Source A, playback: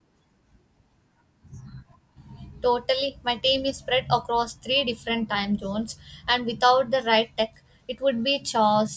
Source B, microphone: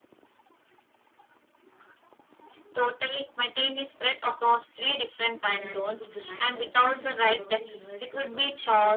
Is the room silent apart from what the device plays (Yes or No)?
No